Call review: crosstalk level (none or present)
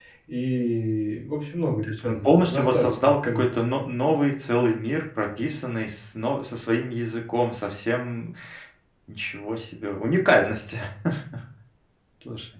present